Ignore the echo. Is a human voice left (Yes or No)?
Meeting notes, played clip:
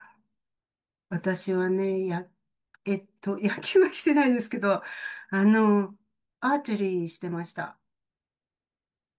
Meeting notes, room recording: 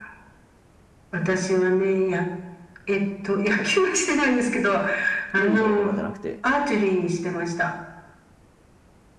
Yes